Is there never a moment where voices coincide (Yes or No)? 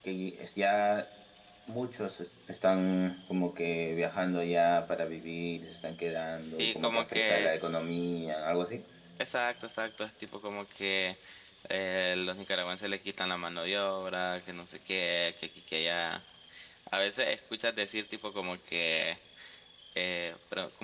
No